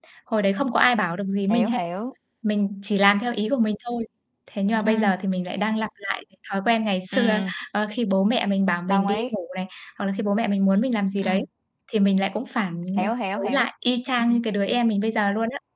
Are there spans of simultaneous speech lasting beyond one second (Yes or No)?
No